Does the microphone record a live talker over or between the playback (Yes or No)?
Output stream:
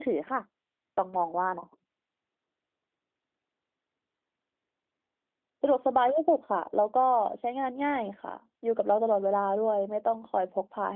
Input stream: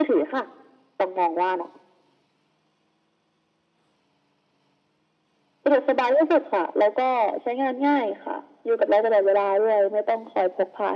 No